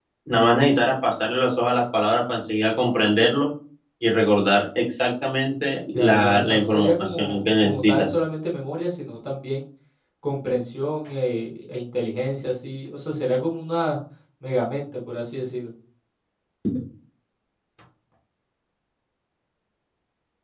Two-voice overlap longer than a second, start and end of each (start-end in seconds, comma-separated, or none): 5.9-8.2